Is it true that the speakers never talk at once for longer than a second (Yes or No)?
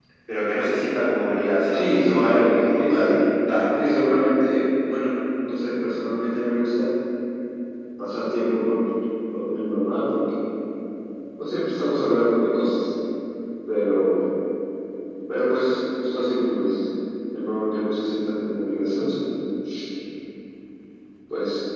No